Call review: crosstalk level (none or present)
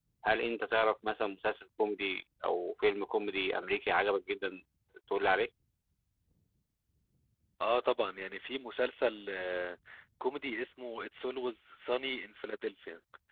none